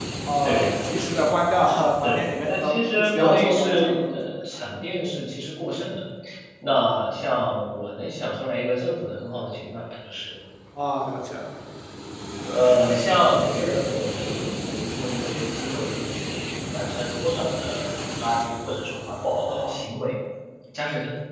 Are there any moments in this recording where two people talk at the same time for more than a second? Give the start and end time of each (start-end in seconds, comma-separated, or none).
2.0-4.2